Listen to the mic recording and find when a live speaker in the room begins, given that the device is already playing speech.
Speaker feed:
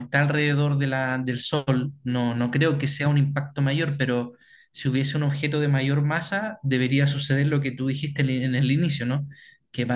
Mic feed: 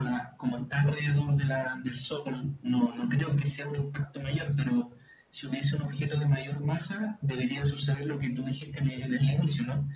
none

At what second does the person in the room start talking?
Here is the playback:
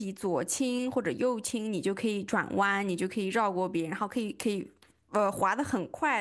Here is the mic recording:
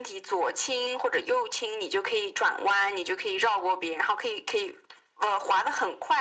none

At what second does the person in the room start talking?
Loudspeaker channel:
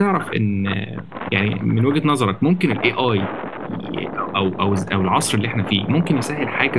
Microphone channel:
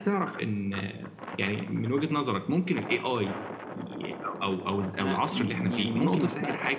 5.0 s

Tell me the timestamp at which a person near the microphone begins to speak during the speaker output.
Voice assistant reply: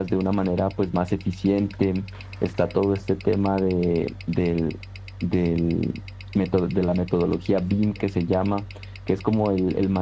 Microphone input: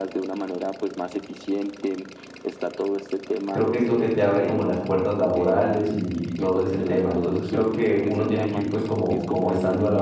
3.5 s

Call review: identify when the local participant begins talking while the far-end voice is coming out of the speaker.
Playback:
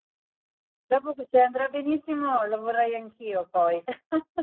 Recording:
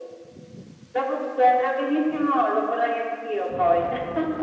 none

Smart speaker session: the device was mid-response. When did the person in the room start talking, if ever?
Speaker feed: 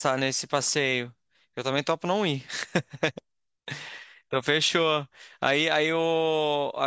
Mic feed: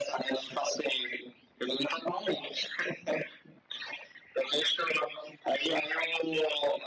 none

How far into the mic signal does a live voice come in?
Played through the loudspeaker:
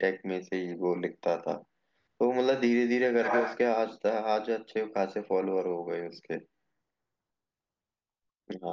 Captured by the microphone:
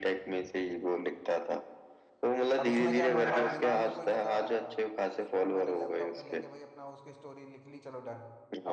2.6 s

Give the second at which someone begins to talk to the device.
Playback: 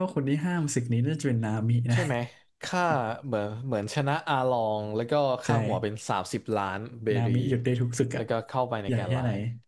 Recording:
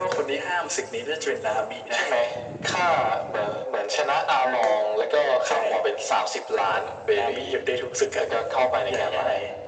none

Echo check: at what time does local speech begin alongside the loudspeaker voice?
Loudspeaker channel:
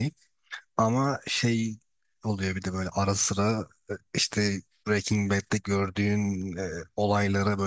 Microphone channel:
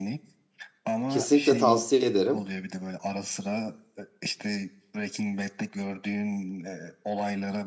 1.1 s

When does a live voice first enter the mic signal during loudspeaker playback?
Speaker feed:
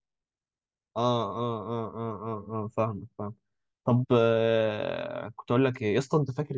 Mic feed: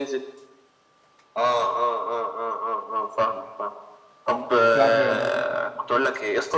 4.7 s

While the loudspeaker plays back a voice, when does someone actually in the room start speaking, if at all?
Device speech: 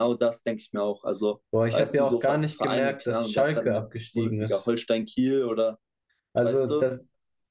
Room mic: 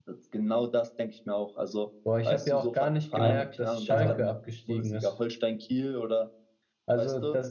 3.1 s

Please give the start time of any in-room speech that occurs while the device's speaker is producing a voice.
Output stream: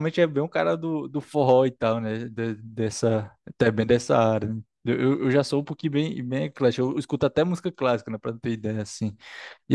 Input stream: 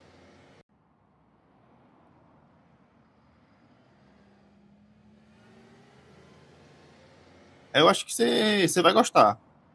7.7 s

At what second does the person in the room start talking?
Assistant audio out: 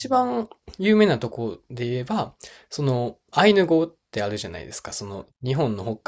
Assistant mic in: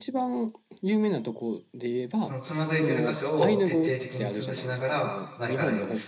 2.2 s

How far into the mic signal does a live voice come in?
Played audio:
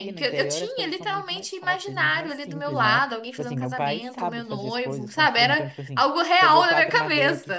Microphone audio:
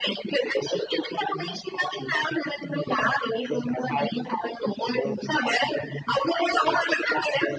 none

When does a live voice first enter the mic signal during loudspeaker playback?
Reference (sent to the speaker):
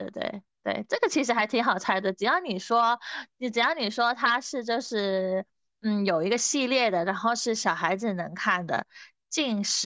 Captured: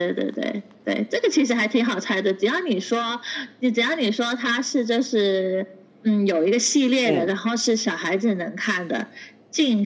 7.0 s

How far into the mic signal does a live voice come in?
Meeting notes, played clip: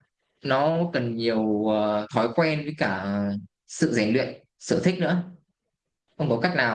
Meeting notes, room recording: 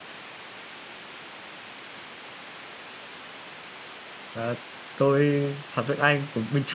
4.3 s

